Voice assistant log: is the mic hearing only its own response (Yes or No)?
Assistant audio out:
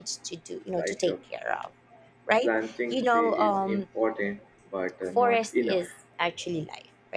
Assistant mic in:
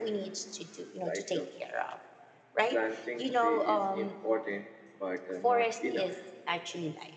Yes